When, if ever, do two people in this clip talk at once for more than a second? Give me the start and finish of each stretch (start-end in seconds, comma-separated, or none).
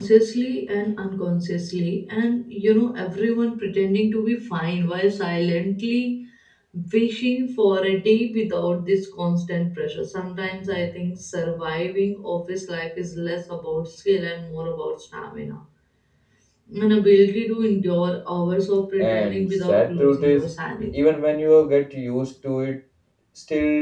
19.0-20.5